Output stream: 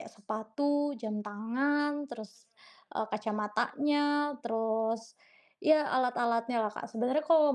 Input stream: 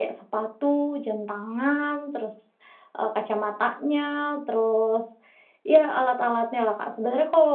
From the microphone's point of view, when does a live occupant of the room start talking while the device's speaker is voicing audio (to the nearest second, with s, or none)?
none